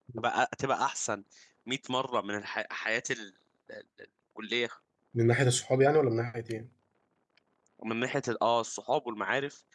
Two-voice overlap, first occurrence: none

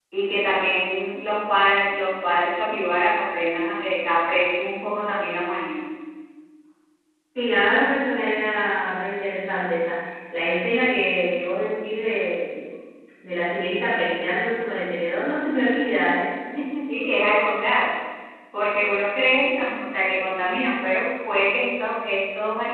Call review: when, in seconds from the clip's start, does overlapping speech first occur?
none

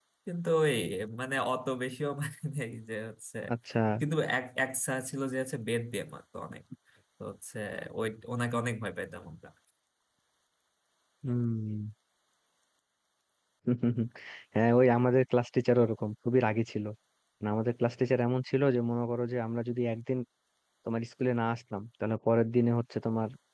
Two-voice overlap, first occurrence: none

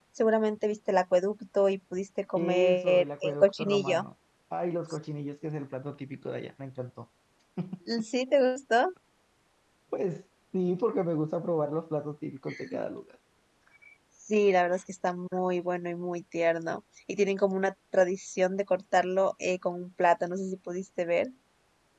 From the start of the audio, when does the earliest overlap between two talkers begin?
2.4 s

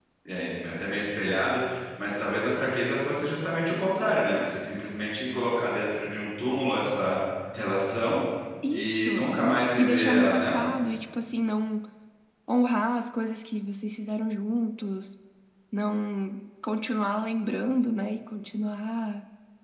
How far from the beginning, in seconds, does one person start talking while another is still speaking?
8.7 s

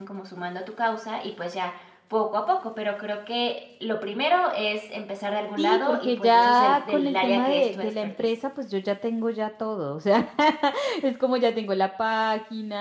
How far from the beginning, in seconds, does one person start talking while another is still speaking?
5.6 s

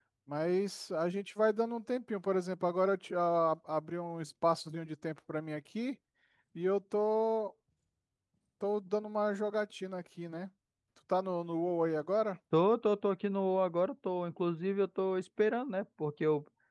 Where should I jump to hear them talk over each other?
none

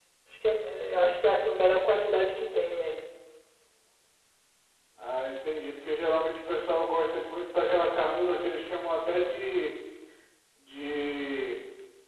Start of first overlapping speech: none

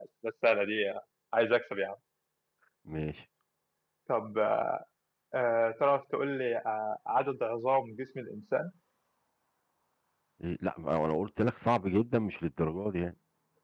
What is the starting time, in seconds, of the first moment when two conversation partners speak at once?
none

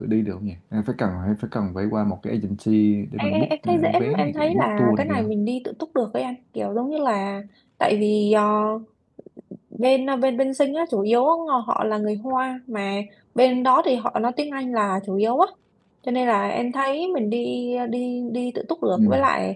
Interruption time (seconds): 3.2 s

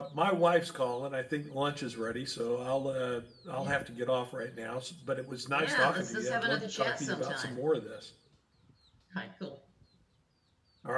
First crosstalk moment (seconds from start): 5.5 s

